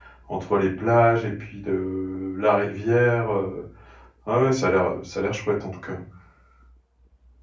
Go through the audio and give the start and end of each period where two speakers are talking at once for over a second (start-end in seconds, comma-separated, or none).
none